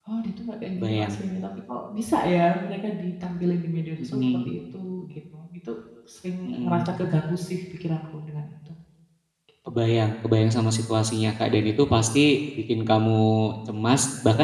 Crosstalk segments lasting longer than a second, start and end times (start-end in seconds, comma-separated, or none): none